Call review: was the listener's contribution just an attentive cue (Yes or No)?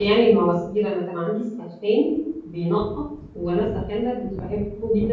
Yes